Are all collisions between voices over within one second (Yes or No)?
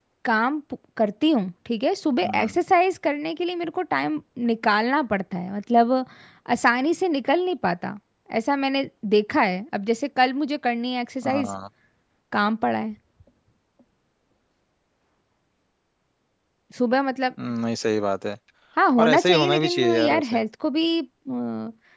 No